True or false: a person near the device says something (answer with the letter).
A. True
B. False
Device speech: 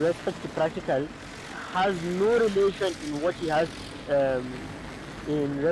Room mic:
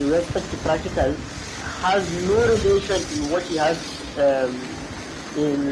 B